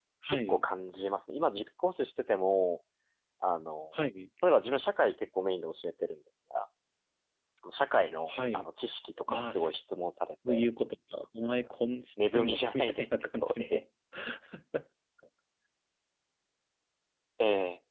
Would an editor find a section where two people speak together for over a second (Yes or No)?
Yes